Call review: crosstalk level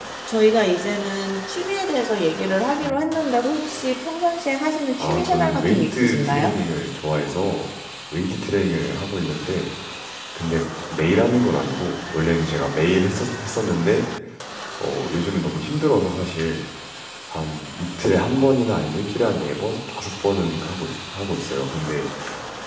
present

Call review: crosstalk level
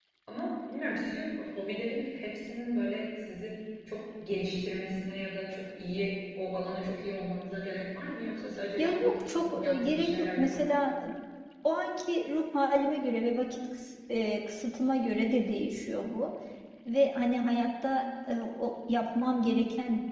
present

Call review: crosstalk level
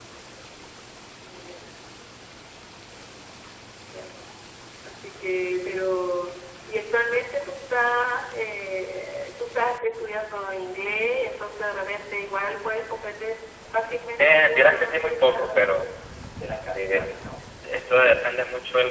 present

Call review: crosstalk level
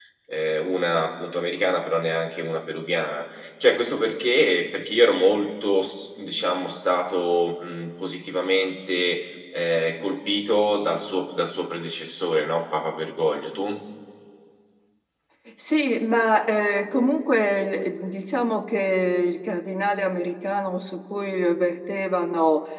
none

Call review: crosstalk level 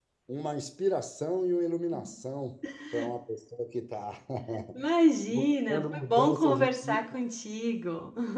present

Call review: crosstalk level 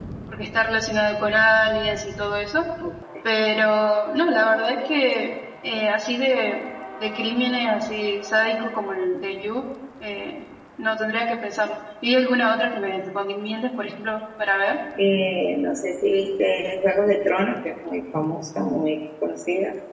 none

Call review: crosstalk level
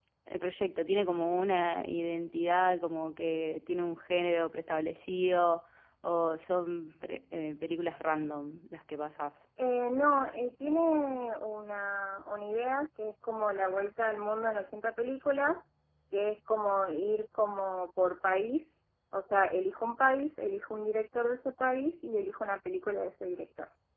none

